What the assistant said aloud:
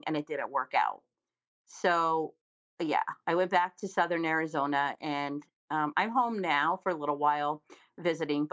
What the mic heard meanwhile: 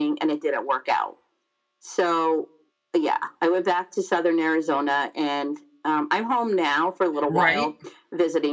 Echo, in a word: present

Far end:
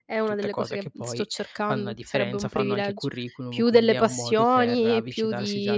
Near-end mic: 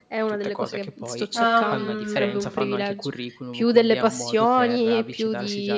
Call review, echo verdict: present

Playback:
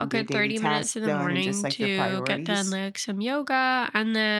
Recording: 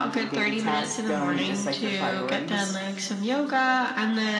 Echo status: present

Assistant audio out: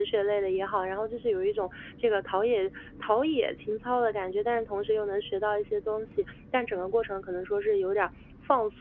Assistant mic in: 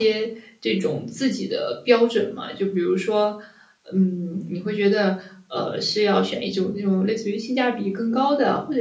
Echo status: none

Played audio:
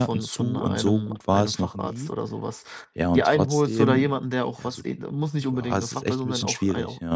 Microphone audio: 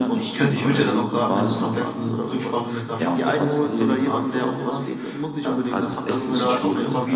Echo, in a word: present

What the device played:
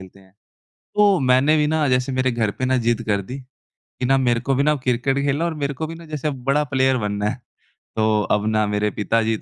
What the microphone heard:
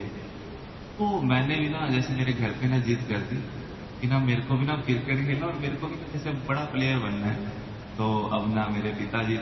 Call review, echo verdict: present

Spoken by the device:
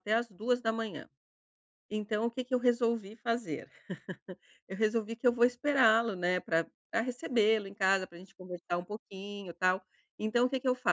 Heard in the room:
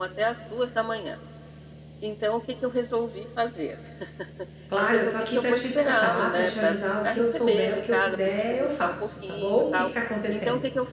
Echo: present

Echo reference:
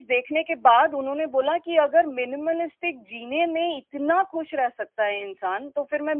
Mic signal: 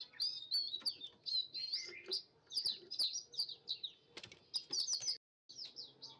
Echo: none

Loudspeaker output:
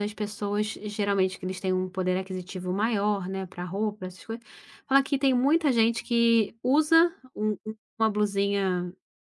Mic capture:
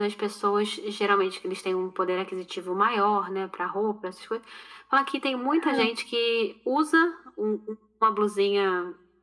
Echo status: present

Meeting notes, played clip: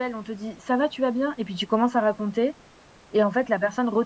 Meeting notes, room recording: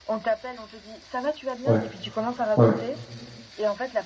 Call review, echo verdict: present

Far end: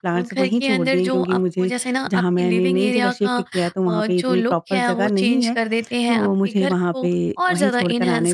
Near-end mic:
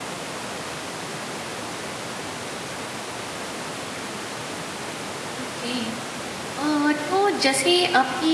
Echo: none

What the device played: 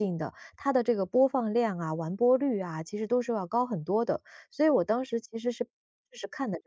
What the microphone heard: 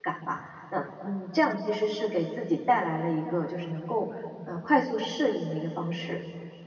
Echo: none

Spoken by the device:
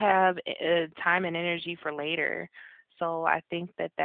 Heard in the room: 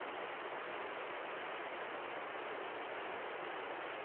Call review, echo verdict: none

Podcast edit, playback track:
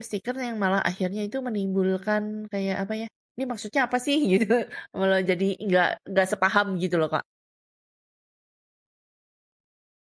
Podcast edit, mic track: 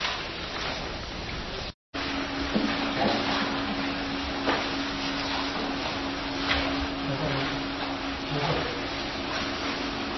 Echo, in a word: none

